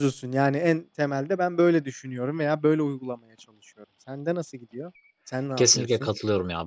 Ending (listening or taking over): taking over